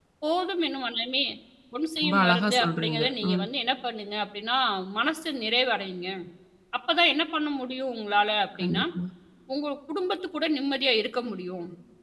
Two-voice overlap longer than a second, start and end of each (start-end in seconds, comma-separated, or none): 2.0-3.4